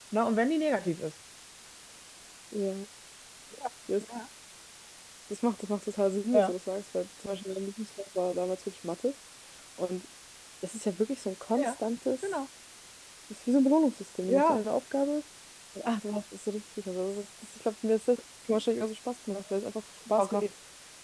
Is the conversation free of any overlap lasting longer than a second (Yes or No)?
Yes